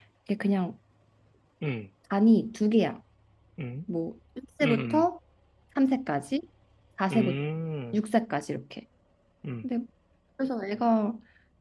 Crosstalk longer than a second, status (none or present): none